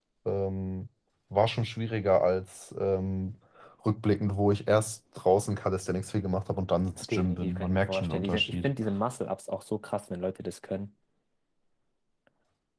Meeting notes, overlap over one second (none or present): present